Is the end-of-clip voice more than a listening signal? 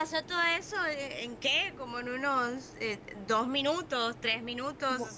Yes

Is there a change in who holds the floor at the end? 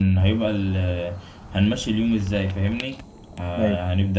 No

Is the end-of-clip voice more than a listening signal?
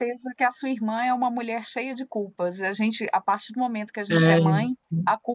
No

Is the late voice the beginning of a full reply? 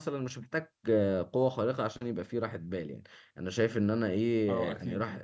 No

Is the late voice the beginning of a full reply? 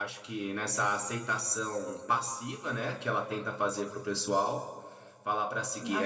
No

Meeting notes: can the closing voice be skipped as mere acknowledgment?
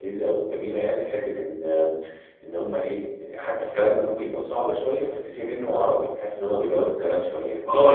No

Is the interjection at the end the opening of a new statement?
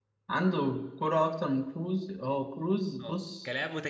Yes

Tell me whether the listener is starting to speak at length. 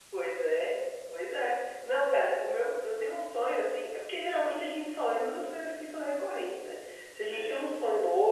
No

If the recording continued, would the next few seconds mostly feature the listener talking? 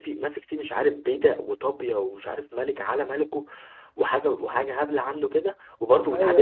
No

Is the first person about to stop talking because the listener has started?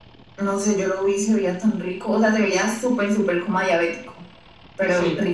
Yes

